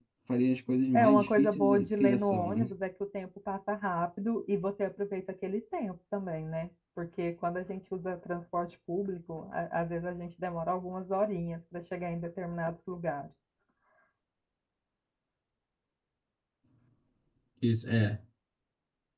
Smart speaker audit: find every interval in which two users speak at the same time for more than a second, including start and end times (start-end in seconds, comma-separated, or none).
0.9-2.7